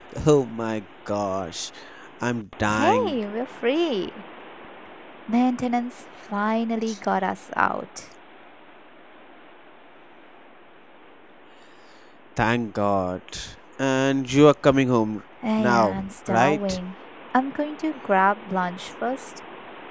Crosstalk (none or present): present